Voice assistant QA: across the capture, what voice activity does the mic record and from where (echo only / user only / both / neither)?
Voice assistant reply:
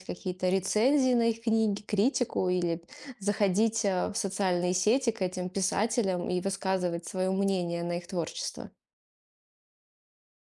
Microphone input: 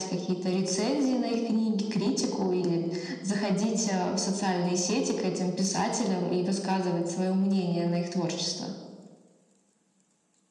echo only